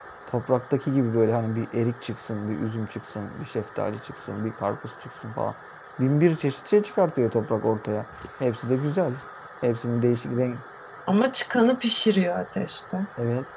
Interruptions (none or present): none